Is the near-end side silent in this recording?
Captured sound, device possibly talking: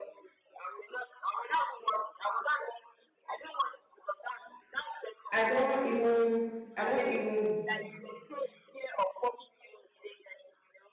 No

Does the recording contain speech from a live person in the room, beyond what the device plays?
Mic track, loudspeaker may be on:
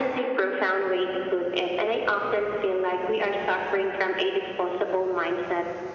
No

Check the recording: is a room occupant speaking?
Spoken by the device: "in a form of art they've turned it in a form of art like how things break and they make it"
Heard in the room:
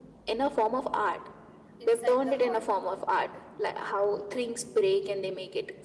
Yes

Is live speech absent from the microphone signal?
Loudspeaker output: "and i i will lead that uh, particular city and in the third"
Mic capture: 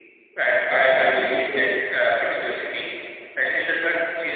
No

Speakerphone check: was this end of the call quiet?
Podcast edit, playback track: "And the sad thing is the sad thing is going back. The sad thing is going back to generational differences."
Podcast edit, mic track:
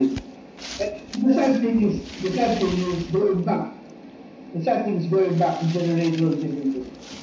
Yes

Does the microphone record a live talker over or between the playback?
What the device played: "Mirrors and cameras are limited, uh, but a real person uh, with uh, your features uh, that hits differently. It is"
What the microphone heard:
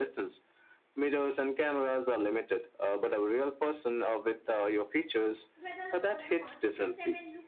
Yes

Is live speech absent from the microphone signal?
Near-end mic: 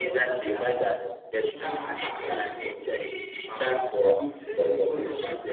No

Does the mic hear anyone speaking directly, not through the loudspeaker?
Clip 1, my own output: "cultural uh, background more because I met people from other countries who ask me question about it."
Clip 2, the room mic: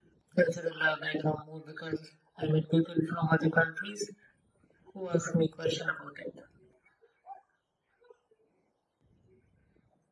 No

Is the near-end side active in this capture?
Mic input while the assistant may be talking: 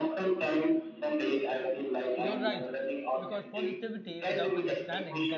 Yes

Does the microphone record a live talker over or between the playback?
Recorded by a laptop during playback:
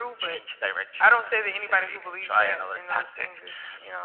No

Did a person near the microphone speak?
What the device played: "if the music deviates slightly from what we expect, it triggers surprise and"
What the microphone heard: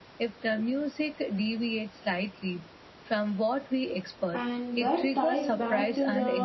Yes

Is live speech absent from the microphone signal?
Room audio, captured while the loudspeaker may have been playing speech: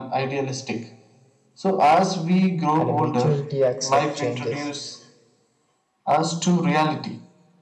No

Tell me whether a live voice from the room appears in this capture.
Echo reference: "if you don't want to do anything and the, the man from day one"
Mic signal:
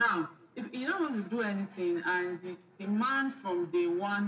No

